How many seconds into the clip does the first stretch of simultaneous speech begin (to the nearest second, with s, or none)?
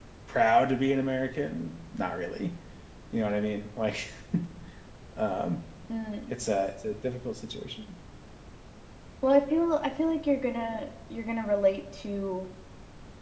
none